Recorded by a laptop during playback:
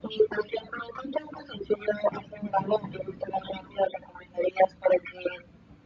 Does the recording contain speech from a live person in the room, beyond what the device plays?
No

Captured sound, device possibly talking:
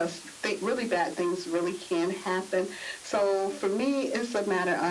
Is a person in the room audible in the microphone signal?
No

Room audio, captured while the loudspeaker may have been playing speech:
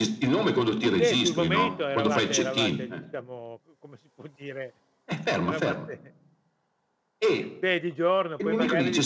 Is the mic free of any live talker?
No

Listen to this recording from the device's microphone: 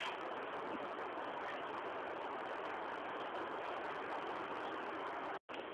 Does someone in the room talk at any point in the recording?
No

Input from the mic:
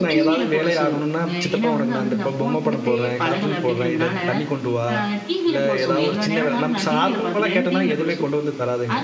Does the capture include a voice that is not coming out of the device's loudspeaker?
Yes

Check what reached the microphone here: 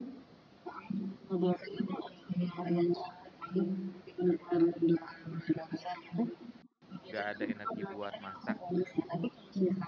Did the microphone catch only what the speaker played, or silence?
No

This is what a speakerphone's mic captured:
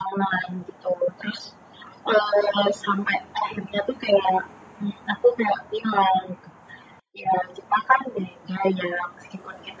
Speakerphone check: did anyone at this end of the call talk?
No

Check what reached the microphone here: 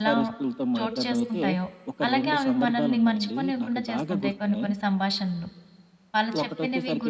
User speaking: Yes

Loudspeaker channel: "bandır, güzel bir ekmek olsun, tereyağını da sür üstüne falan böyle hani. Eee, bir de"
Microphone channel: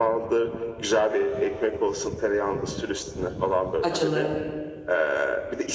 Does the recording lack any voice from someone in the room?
No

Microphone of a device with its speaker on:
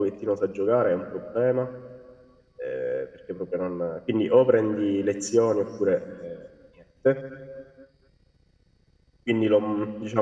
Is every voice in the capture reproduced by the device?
Yes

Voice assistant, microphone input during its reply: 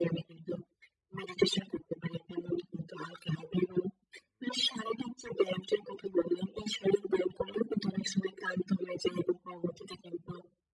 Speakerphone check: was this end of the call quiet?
Yes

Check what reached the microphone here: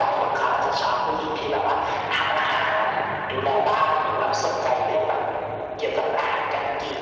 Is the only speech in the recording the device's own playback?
Yes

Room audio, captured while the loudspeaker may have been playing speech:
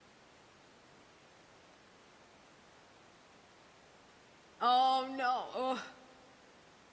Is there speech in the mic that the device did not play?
Yes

